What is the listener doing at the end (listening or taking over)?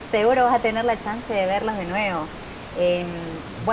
listening